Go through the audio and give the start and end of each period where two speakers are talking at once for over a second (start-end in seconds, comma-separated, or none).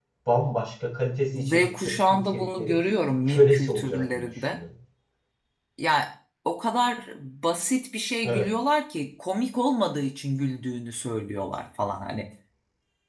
1.3-2.8, 3.3-4.6